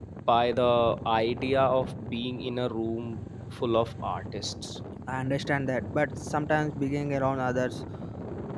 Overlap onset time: none

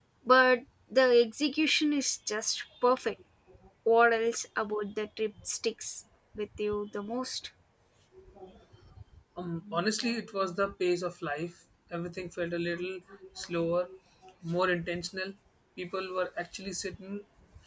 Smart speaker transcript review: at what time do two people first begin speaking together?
none

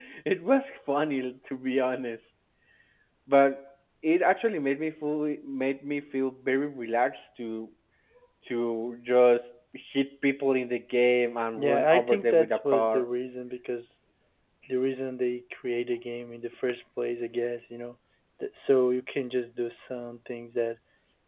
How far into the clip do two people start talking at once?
11.6 s

